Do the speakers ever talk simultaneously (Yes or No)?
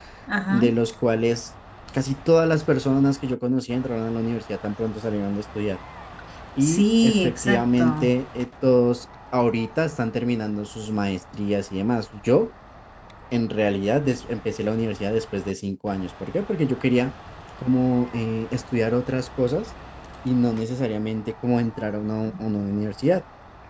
Yes